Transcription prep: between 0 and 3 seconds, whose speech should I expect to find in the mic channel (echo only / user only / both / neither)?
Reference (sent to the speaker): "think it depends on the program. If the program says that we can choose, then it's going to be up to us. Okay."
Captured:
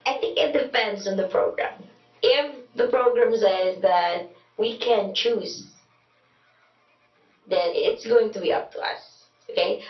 echo only